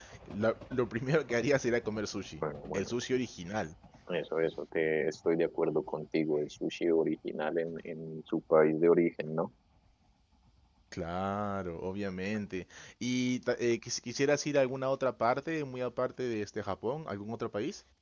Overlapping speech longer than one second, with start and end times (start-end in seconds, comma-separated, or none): none